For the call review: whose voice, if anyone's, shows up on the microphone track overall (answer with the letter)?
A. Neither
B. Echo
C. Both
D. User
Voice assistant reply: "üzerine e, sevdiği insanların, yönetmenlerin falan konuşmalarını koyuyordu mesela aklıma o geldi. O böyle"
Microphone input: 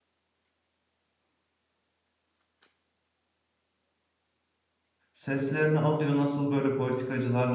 D